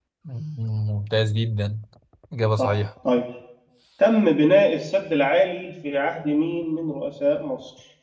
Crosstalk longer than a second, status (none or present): none